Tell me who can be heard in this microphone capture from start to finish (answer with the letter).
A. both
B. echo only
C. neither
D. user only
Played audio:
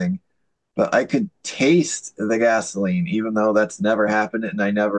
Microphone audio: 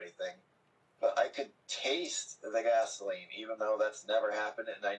B